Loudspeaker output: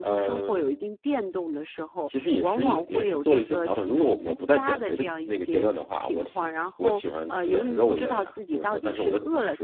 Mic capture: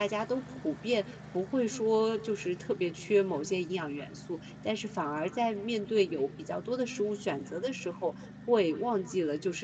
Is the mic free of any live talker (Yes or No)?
No